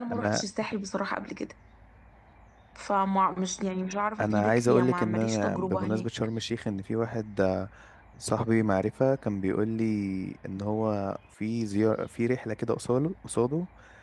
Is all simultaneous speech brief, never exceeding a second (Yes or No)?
No